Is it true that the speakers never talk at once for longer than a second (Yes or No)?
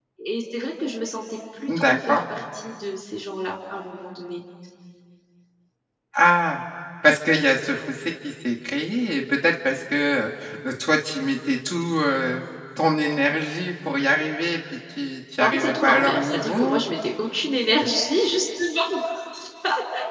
No